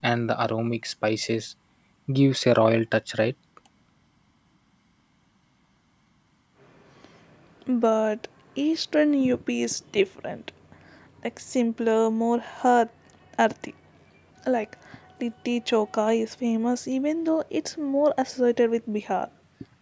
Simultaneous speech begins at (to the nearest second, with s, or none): none